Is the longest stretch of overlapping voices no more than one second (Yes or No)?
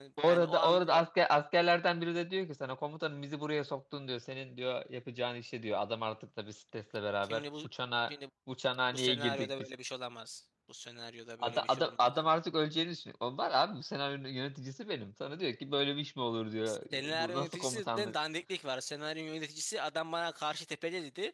No